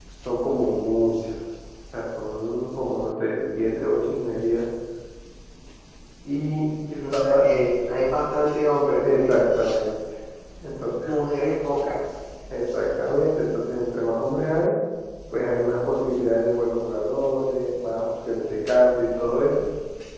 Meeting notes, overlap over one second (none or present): none